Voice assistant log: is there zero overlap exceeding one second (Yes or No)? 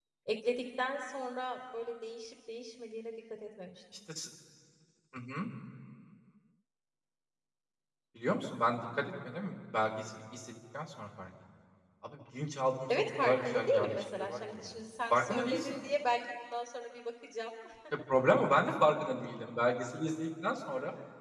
No